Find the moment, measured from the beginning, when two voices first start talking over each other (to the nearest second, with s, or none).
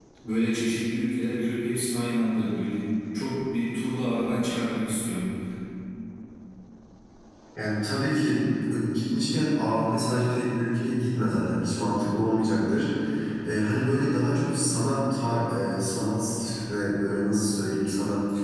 none